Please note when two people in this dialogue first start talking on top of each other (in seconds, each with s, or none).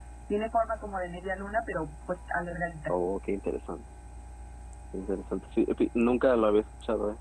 none